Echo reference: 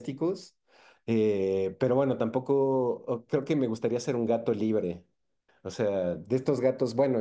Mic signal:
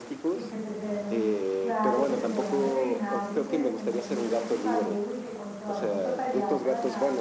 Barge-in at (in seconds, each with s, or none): 0.3 s